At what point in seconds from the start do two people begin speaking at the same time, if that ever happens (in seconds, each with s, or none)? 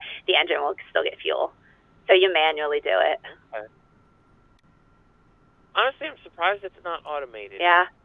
none